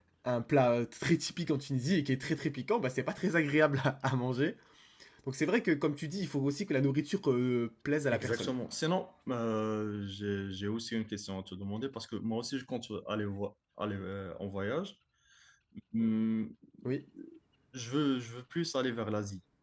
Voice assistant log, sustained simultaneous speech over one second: none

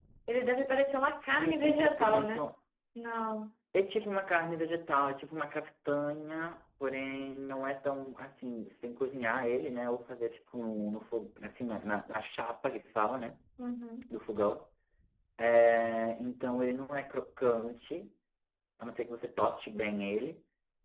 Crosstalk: present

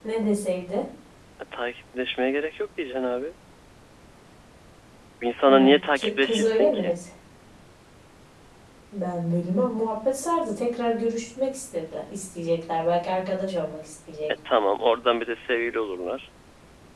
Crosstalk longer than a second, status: present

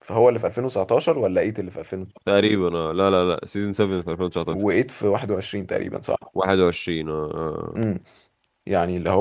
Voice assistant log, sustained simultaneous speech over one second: none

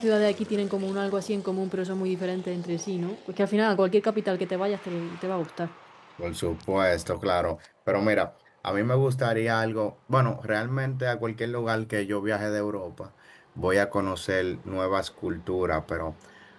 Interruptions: none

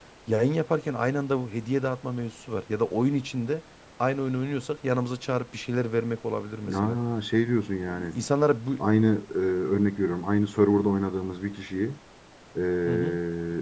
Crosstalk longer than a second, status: none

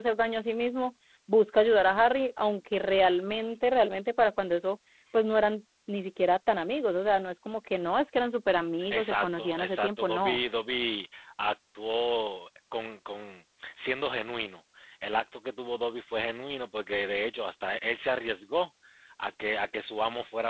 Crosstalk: present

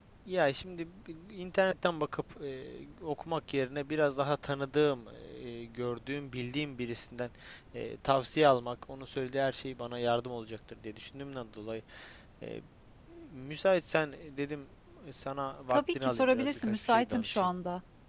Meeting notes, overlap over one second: present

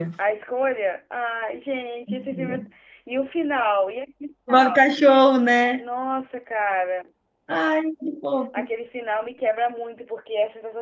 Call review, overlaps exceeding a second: none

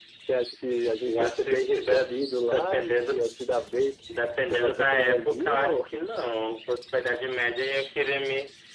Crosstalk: present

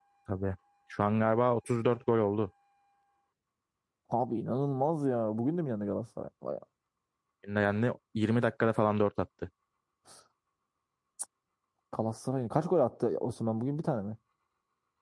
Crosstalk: none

